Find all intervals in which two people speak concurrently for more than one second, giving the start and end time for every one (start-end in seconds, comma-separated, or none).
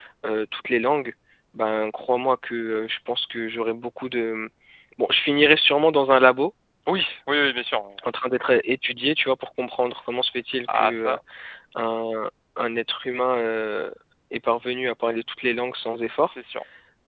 none